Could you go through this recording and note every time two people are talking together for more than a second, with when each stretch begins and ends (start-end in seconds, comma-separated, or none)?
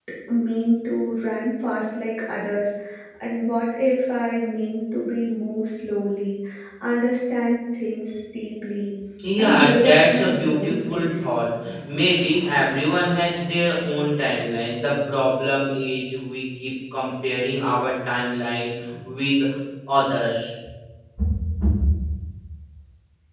9.4-11.2